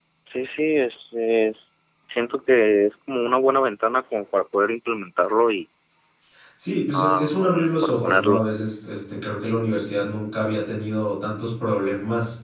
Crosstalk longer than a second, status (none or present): present